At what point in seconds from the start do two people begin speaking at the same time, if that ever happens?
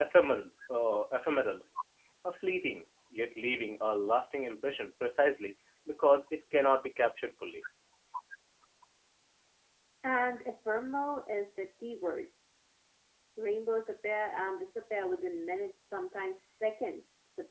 none

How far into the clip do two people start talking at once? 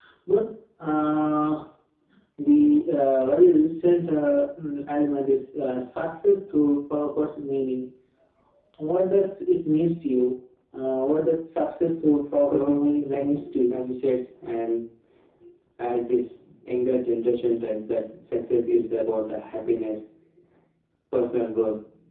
12.5 s

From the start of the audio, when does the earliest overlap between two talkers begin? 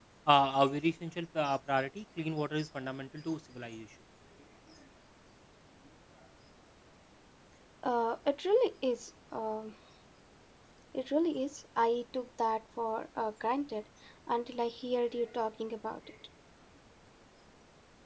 none

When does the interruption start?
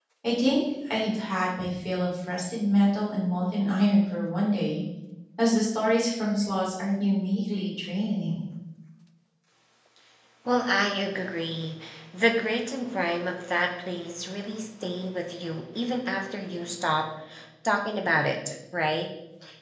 none

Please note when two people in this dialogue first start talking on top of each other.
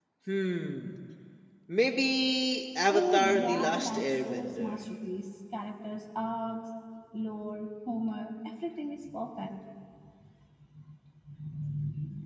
2.9 s

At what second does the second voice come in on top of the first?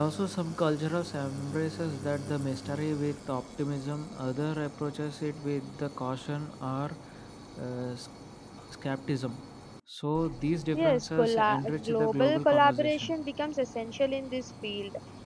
10.7 s

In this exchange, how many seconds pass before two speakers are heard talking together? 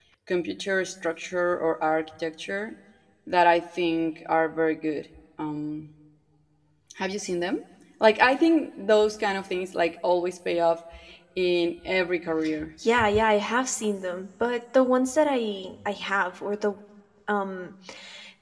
none

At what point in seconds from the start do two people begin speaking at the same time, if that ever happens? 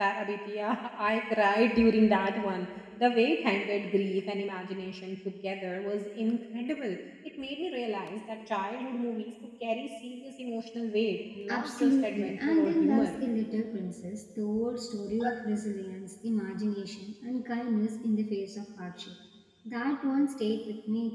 11.5 s

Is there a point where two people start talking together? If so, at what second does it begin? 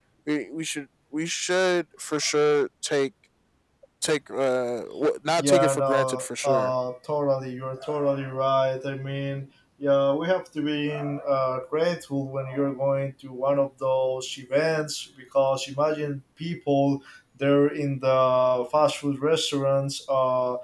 5.4 s

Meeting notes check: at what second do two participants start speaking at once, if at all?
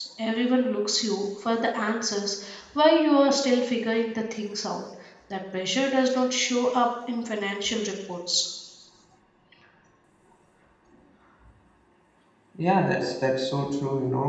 none

